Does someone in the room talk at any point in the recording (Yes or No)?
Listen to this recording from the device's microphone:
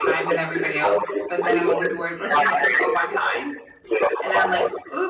Yes